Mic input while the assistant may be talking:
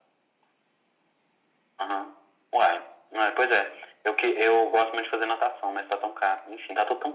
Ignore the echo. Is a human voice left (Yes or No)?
No